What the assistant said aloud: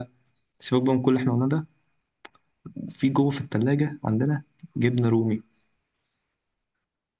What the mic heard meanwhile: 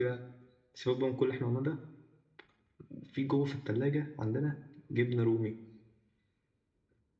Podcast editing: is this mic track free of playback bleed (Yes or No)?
No